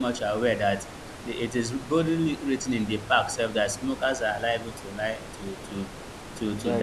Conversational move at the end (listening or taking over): listening